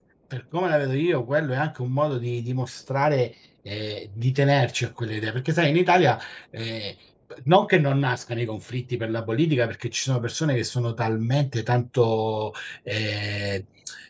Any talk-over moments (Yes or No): No